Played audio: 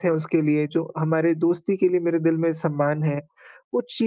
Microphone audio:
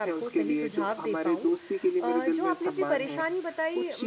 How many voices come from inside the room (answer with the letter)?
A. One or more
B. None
A